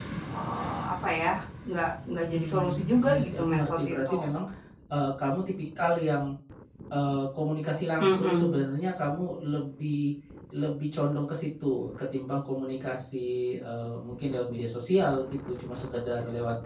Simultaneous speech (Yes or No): Yes